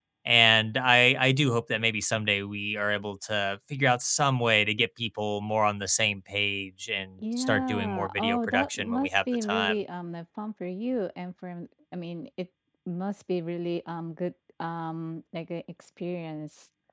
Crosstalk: present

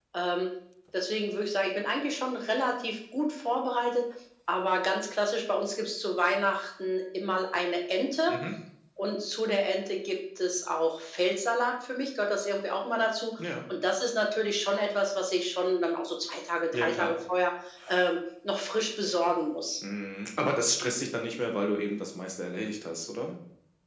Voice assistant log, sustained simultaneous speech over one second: none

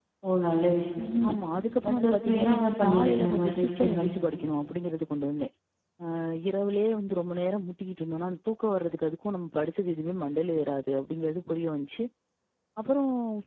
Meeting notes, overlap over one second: present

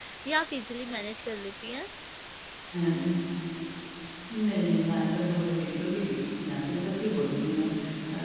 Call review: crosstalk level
none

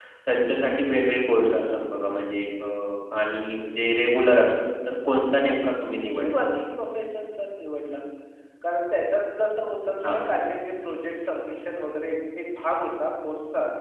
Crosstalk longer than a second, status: none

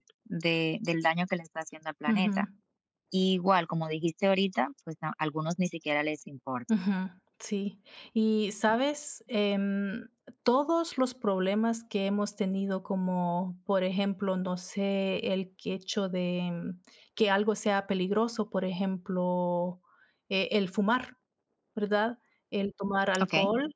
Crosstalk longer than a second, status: none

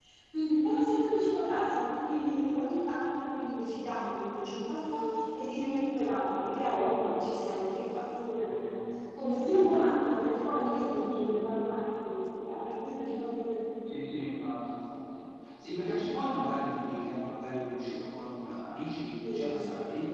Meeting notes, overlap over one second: none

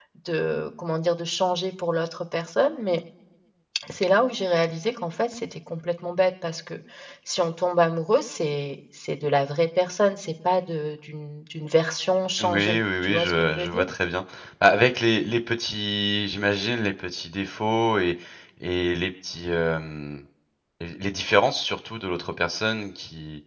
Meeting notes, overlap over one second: present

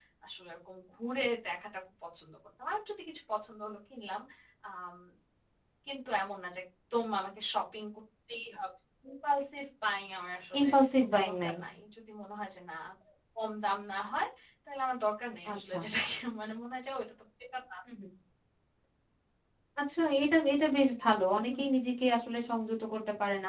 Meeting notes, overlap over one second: none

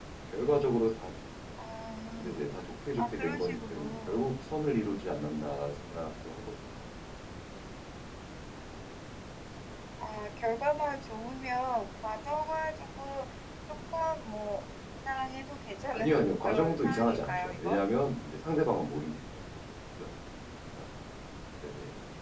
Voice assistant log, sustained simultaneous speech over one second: present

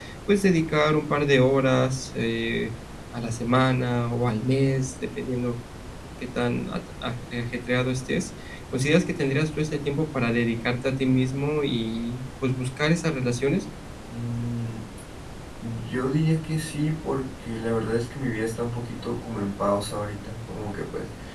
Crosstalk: none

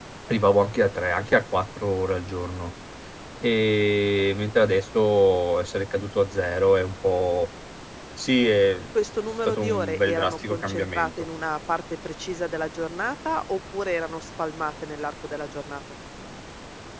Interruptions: present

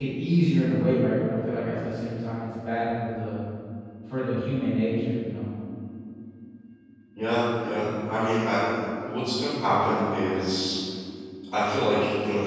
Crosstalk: none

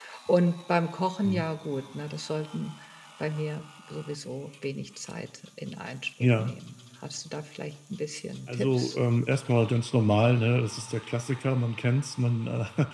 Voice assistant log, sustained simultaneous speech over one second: none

